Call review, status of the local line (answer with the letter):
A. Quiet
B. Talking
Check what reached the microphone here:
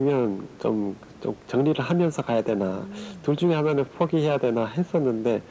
B